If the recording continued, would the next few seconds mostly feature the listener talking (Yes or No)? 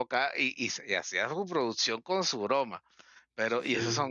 No